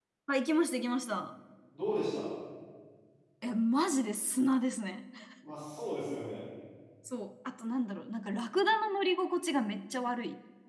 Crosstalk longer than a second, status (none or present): none